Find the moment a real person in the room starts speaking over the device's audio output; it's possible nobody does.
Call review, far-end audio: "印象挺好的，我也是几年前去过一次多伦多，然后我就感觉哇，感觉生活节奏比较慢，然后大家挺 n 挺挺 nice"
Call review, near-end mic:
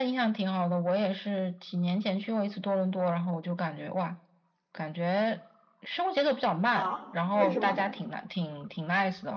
6.7 s

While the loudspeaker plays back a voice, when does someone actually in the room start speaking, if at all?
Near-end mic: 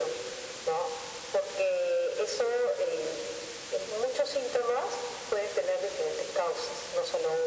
none

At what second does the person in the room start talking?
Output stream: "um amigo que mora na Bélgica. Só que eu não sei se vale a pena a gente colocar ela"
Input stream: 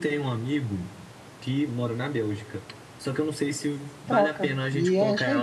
4.0 s

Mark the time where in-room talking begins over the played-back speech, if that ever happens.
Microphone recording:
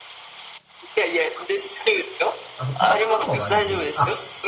2.6 s

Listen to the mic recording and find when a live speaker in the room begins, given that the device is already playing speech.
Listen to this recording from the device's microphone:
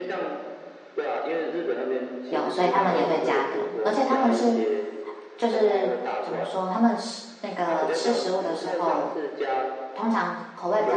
2.3 s

